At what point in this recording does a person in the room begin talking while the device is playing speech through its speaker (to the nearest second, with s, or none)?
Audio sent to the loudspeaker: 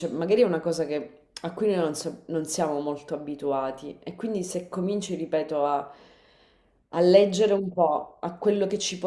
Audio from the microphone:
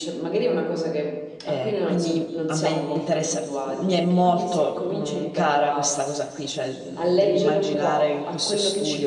1 s